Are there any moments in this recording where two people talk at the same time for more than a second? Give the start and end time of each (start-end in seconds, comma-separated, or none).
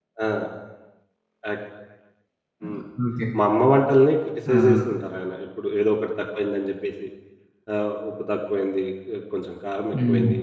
none